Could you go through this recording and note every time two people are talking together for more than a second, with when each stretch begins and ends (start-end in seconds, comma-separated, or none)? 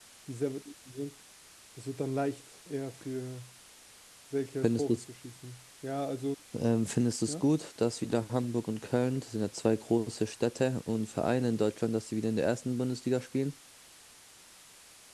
none